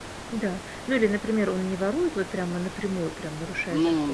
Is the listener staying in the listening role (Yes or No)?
Yes